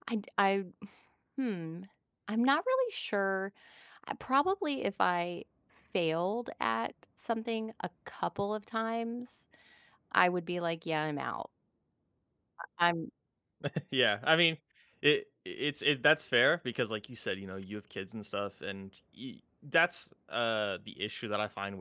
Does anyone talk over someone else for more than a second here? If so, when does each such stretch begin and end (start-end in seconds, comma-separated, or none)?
none